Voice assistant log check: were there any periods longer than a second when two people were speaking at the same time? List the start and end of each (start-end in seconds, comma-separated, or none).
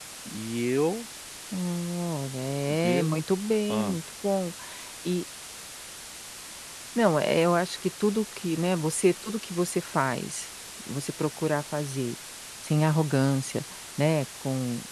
none